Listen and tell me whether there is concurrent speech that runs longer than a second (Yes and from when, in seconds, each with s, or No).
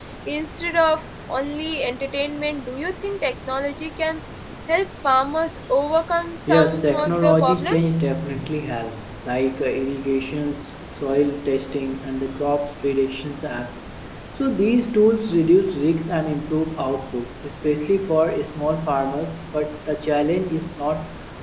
Yes, from 6.5 s